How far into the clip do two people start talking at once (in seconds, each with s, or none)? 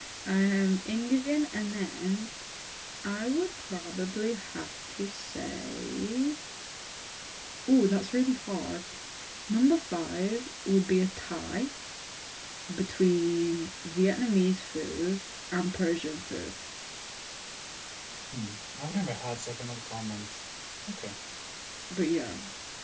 none